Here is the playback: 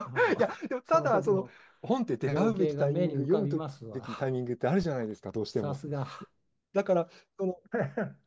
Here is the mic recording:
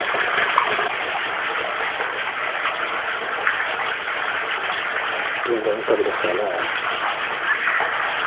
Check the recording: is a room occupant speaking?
Yes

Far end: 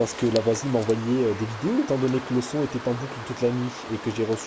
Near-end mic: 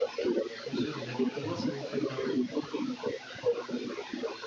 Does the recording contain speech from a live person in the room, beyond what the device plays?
Yes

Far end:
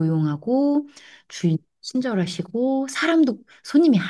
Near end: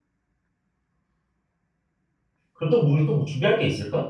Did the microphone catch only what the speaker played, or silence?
No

